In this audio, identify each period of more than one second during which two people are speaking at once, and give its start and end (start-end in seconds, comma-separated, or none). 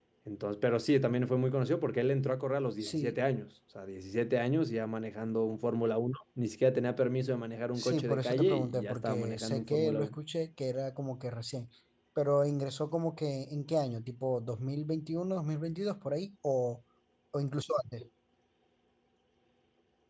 7.8-10.1